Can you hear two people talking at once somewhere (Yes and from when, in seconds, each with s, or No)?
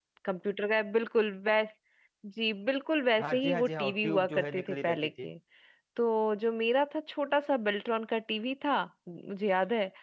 Yes, from 3.2 s